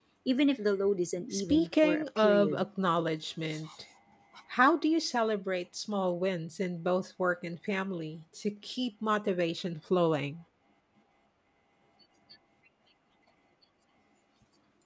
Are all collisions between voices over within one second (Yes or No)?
No